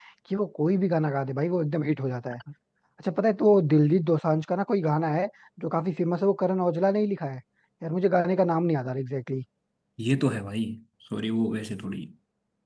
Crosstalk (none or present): none